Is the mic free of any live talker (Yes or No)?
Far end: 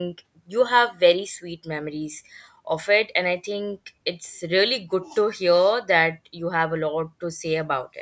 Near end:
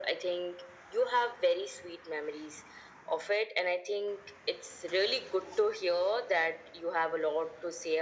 Yes